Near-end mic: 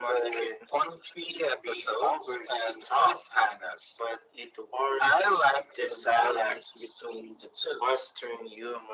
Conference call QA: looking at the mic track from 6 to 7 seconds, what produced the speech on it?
echo only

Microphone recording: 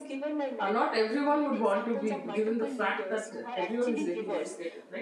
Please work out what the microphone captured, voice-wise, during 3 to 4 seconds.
both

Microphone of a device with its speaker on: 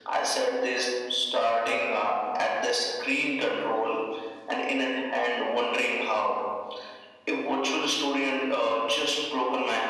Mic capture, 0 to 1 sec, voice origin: echo only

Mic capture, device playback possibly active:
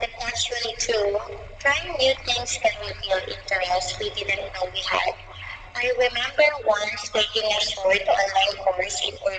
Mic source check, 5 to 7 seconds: echo only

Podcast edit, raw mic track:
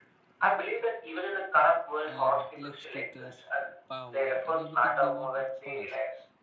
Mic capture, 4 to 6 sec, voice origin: both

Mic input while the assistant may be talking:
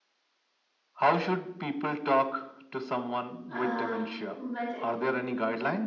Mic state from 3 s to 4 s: both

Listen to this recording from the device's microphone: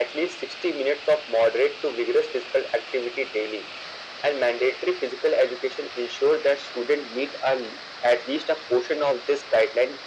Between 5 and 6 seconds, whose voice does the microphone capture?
echo only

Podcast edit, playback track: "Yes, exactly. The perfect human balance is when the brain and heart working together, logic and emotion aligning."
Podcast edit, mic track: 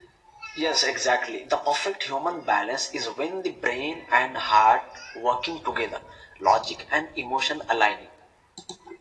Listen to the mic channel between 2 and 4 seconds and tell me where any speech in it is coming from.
echo only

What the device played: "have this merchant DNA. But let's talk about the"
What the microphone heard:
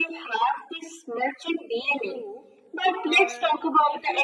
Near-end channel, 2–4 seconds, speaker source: both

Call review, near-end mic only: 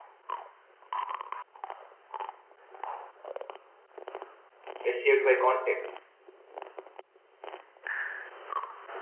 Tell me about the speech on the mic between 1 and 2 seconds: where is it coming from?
neither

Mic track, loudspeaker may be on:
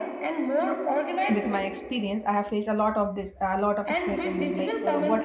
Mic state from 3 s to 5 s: both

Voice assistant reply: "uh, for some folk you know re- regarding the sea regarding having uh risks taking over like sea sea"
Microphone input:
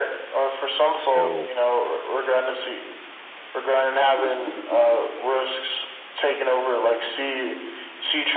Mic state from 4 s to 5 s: echo only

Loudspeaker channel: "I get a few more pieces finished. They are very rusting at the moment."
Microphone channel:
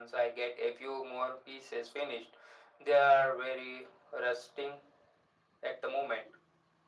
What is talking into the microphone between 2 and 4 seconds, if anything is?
echo only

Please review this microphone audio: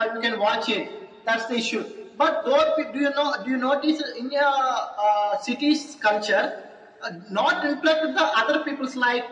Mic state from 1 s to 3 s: echo only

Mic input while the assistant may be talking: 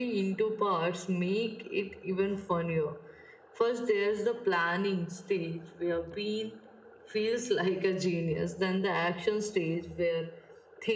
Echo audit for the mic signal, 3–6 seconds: echo only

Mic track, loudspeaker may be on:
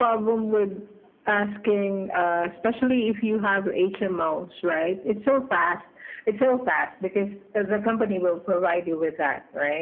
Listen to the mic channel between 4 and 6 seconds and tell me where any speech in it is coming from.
echo only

